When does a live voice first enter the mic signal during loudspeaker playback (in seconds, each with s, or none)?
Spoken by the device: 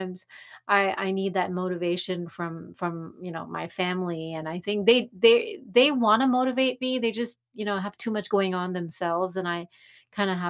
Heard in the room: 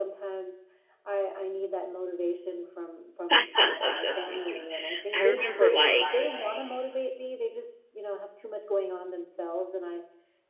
3.3 s